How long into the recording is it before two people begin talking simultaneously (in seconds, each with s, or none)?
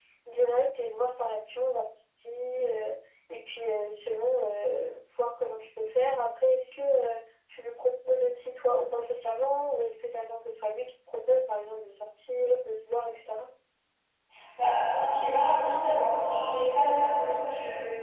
none